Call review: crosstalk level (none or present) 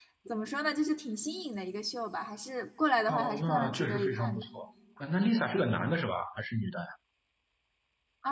present